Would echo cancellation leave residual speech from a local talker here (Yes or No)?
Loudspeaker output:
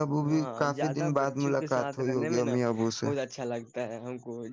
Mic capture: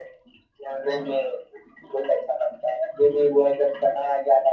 Yes